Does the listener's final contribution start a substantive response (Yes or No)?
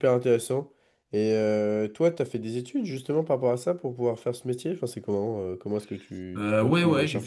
Yes